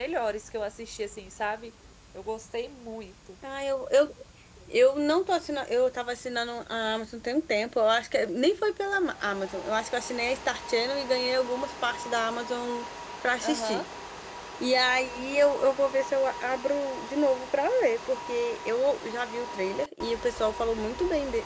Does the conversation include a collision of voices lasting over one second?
No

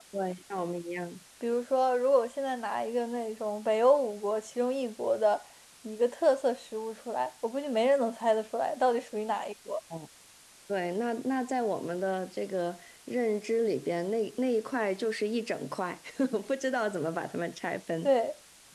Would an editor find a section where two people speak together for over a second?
No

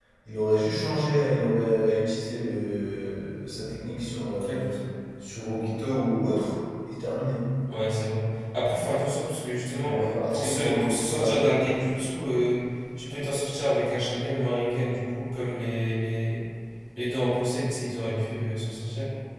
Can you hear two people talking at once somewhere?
Yes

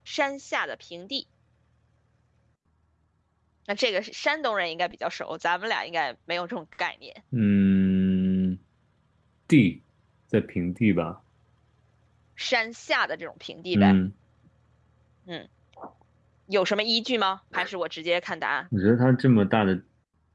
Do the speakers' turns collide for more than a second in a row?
No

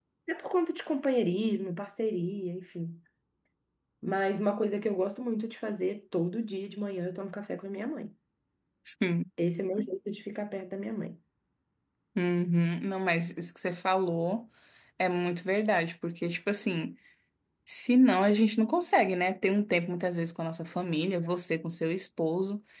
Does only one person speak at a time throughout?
Yes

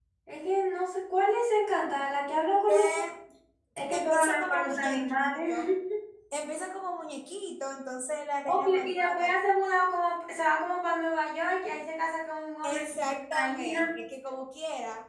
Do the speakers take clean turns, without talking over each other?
No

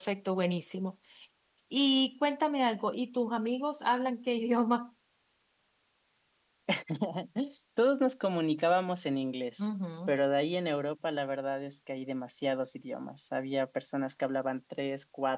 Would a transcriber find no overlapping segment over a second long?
Yes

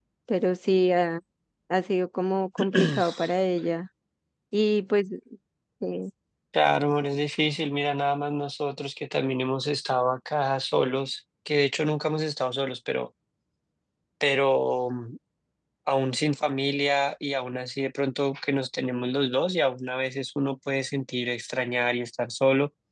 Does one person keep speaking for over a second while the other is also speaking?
No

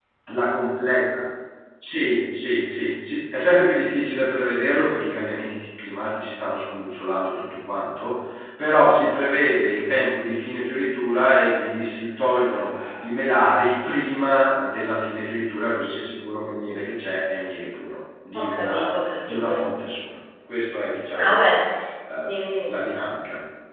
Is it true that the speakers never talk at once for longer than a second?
No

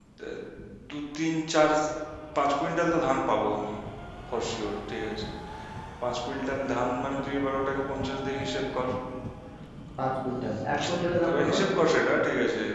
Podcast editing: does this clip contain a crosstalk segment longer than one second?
No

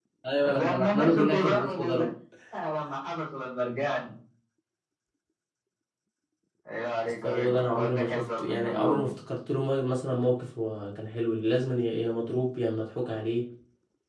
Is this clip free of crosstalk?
No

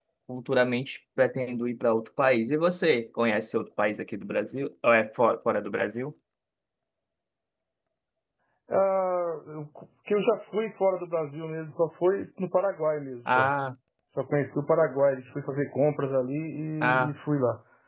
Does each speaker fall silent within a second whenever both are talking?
Yes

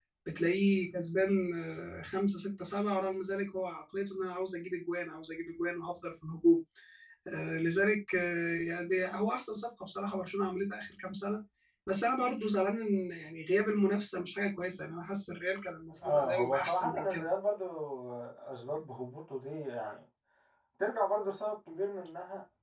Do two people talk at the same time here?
Yes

